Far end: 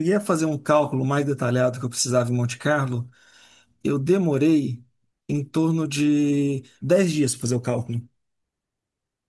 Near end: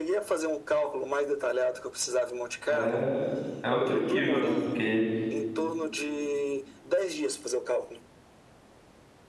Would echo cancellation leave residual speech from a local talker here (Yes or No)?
Yes